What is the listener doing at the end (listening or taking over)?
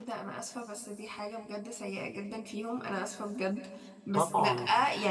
listening